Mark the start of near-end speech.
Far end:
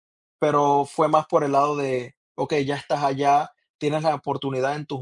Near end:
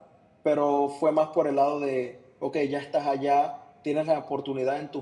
none

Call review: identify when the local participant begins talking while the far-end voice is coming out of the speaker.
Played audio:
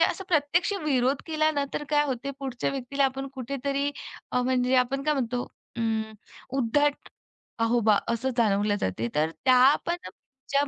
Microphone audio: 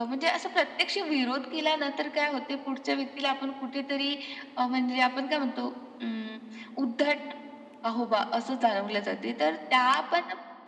none

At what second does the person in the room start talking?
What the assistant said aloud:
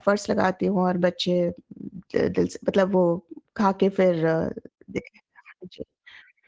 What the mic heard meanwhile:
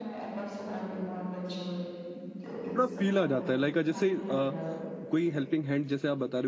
2.8 s

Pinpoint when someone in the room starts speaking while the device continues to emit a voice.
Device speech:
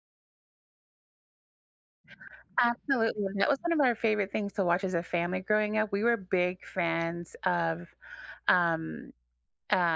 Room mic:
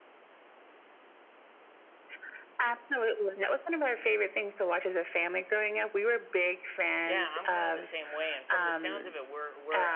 7.0 s

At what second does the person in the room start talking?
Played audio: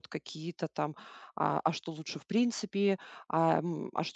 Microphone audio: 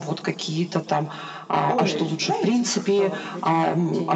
1.6 s

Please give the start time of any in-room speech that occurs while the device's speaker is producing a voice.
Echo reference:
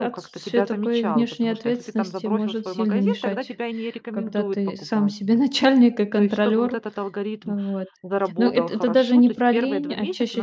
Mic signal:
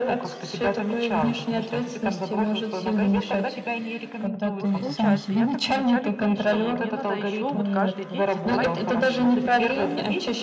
4.5 s

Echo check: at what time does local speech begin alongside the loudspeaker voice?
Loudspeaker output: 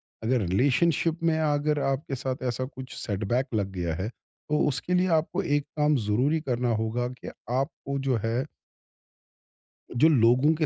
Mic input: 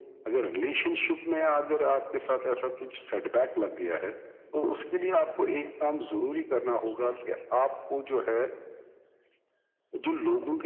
none

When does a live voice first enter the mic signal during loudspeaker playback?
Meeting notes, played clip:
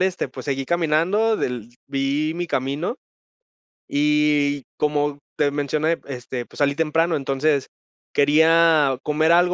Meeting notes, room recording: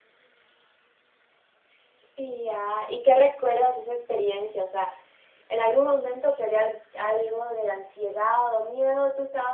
2.1 s

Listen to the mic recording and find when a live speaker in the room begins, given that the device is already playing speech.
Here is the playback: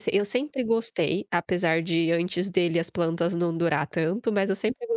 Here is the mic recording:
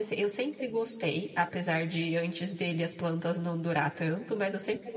none

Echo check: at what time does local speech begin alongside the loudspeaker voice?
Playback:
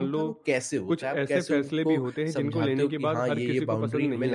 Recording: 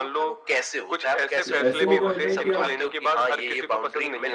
1.4 s

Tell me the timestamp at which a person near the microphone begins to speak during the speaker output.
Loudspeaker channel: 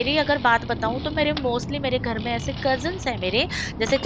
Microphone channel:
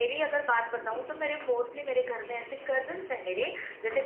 none

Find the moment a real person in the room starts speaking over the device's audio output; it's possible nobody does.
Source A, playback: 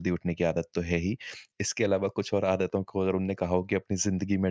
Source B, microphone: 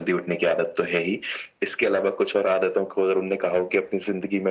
none

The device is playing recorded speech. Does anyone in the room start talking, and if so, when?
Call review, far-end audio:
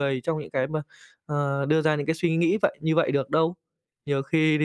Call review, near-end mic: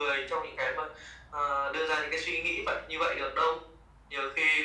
none

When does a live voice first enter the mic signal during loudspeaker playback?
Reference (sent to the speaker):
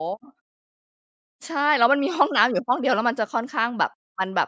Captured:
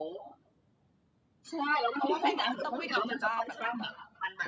1.9 s

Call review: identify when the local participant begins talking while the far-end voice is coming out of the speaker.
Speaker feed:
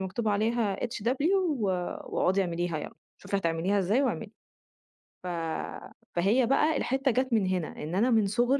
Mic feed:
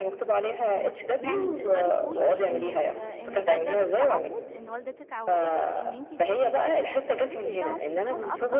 1.2 s

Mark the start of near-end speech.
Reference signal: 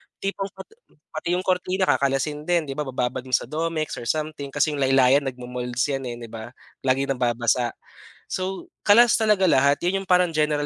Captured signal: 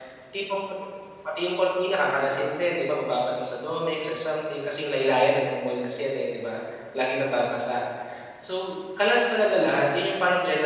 none

